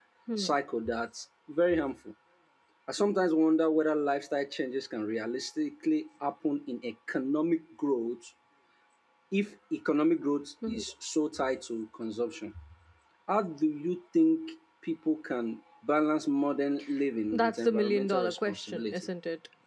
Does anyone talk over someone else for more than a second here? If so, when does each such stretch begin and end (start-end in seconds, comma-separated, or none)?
17.3-19.0